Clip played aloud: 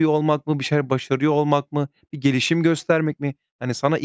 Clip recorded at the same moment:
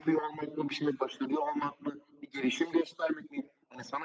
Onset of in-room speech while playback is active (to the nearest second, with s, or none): none